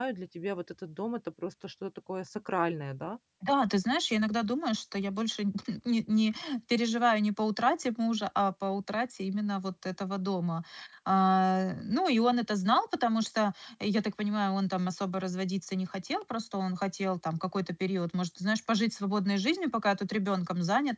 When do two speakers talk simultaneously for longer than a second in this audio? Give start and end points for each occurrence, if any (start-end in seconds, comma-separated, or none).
none